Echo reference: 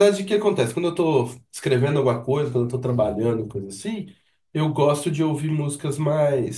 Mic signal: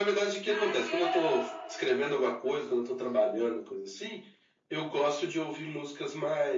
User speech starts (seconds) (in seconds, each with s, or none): 0.5 s